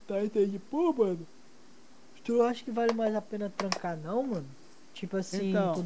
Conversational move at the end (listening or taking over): listening